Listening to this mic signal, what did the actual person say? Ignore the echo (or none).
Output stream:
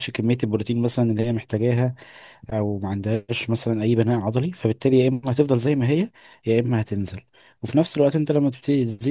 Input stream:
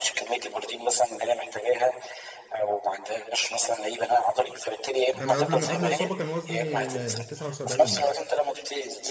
انا قبل ما قبل الاصابه كان وزني آه، 79 يعني